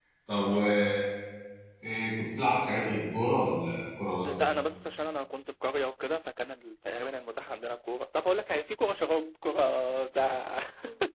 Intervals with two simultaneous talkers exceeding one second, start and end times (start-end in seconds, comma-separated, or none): none